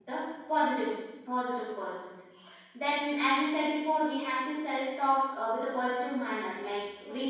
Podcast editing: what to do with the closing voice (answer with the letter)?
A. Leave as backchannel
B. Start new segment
A